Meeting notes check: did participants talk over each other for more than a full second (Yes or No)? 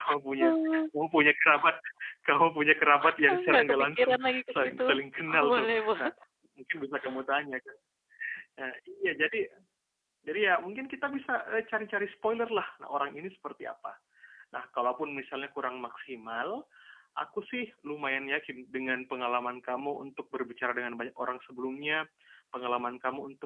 Yes